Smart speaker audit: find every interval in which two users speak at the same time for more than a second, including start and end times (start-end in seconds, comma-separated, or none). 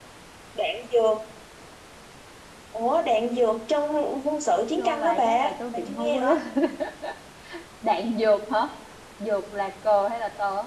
4.8-6.3